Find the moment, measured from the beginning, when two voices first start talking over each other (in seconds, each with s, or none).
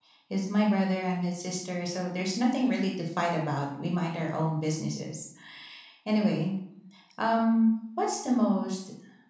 none